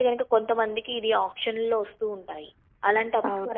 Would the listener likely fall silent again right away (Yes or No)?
Yes